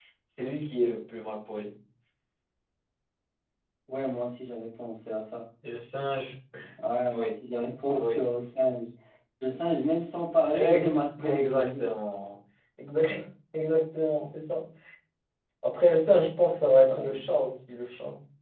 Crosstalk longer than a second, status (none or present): present